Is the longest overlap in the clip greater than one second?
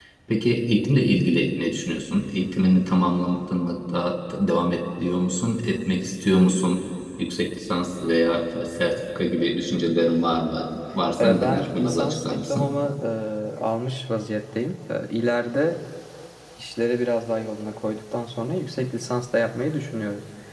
Yes, from 11.2 s

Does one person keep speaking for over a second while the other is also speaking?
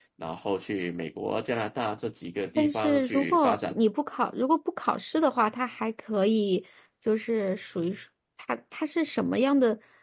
Yes, from 2.6 s

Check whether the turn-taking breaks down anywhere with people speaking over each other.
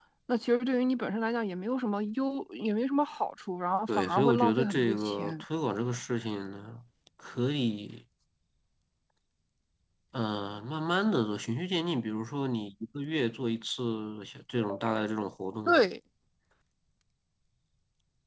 Yes, from 3.9 s

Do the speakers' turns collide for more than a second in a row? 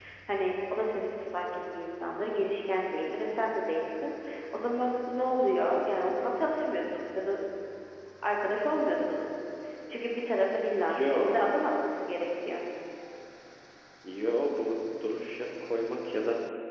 No

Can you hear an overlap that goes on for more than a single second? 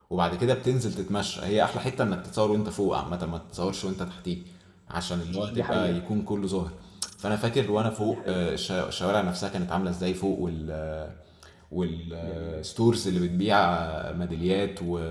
No

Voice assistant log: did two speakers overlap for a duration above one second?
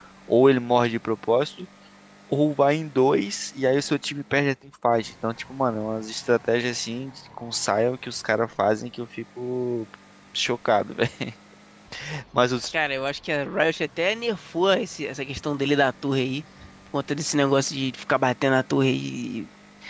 No

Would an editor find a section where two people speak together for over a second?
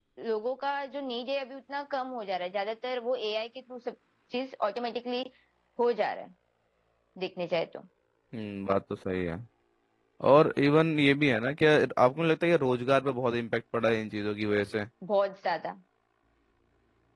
No

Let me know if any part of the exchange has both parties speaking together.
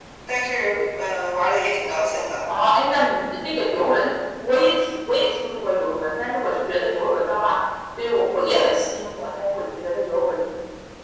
No

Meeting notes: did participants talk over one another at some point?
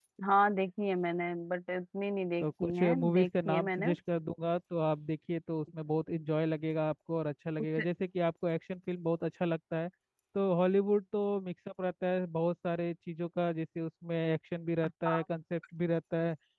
Yes, from 2.4 s

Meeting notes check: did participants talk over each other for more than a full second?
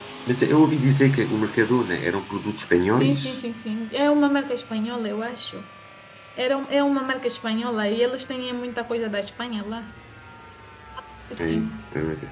No

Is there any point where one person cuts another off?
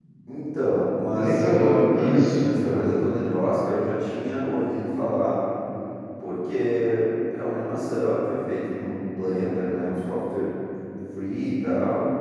Yes, from 1.1 s

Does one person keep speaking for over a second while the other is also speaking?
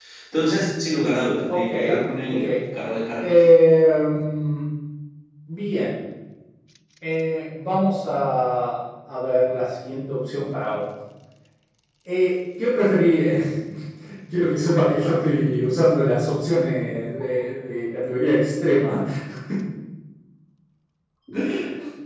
No

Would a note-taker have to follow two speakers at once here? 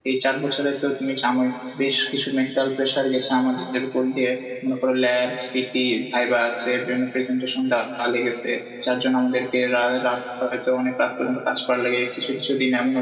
No

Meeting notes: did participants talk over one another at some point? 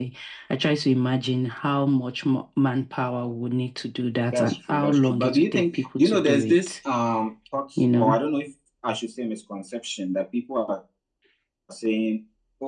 Yes, from 4.3 s

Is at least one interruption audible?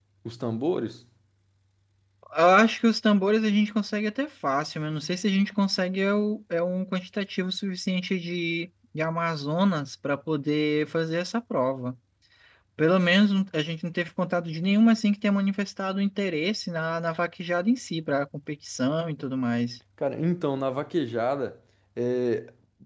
No

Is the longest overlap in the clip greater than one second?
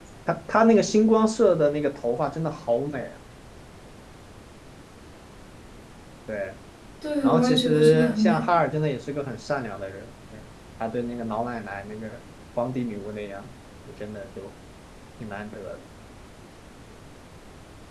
Yes, from 7.2 s

